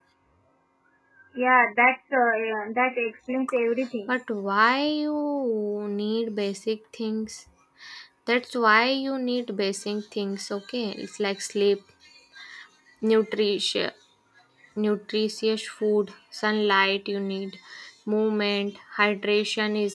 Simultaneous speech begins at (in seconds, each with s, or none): none